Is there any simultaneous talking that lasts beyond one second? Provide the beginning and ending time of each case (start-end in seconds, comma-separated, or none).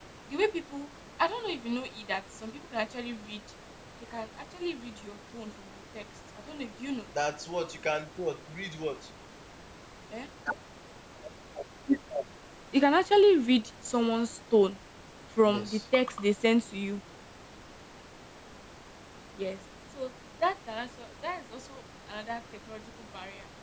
none